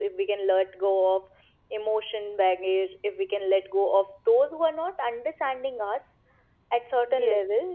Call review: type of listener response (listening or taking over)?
listening